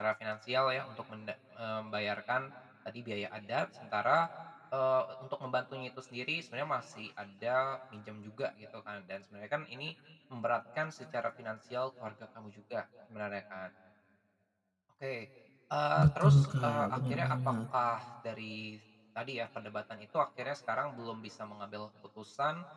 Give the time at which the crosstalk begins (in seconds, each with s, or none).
16.0 s